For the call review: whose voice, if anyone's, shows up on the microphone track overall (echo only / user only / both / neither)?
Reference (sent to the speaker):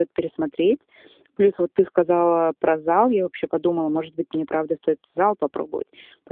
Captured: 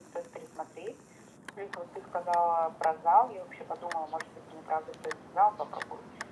echo only